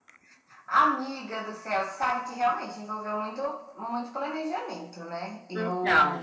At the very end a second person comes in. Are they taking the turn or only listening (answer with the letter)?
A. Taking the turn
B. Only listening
B